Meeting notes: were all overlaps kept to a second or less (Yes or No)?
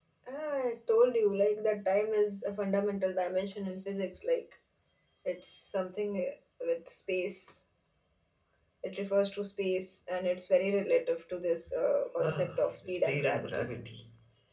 No